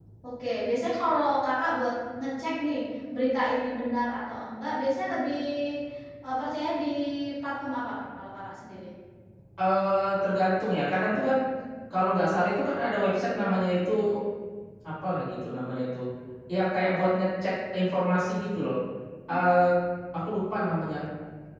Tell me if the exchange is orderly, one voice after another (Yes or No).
Yes